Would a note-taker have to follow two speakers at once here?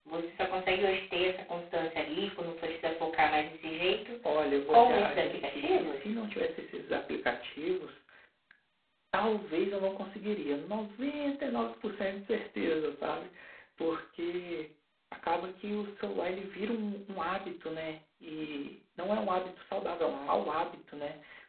Yes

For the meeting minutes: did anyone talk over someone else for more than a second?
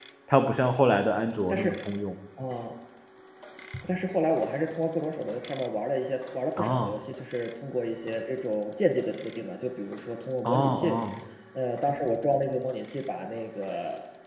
No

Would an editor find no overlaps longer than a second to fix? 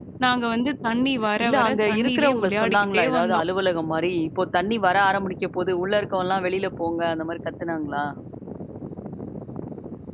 No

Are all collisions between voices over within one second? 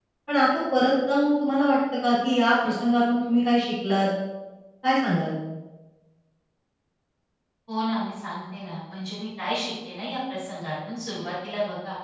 Yes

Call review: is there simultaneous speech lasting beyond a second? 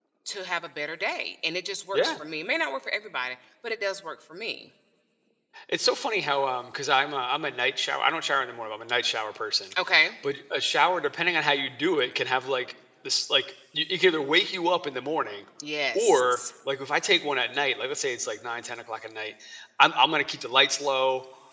No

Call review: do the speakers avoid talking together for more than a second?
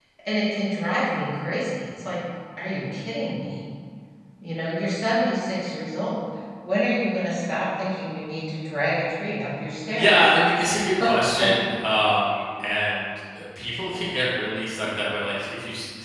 Yes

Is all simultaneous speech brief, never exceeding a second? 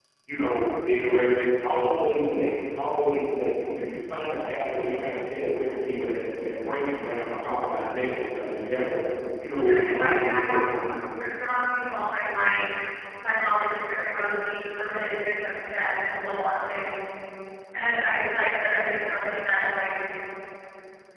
No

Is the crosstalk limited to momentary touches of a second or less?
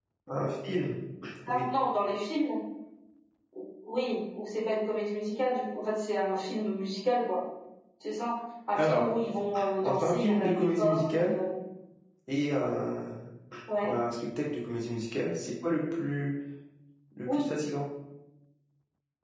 No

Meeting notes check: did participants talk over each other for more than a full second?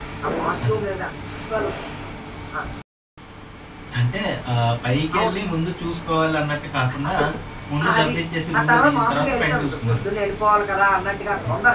Yes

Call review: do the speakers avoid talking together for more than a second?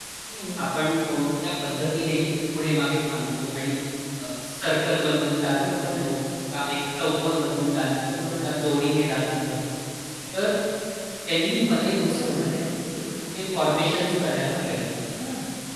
Yes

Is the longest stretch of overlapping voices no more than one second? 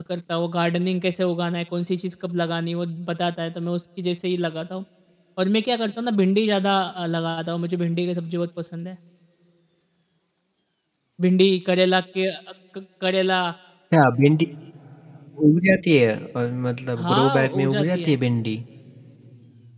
No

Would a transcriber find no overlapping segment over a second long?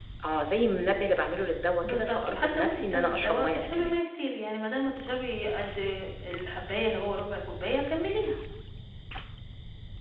No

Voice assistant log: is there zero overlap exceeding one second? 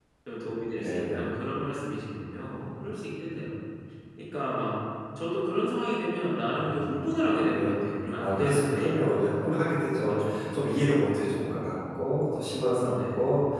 No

